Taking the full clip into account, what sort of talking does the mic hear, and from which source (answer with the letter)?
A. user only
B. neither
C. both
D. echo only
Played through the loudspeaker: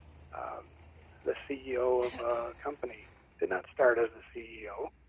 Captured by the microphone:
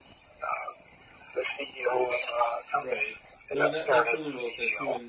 C